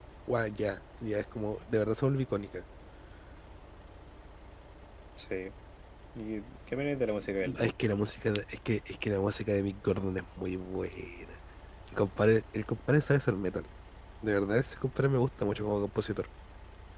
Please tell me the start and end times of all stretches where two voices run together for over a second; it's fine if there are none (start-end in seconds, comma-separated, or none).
none